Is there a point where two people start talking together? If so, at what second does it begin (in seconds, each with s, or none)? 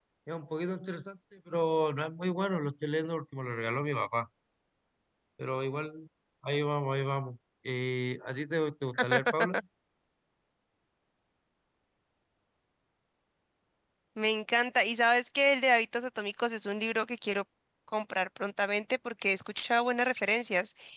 none